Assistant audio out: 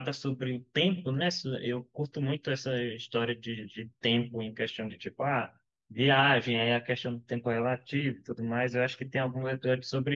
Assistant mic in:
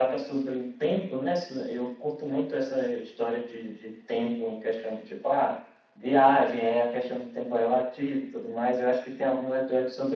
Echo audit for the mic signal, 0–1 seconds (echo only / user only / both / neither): echo only